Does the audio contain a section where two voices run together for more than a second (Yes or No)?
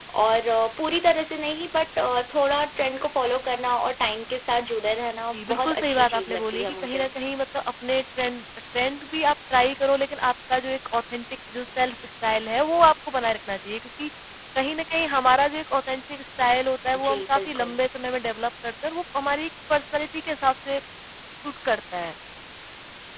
Yes